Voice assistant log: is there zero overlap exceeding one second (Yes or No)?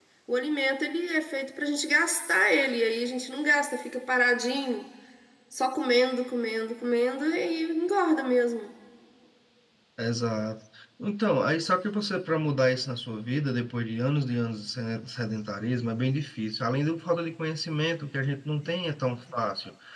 Yes